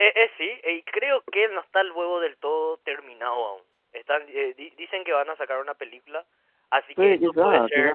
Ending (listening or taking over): taking over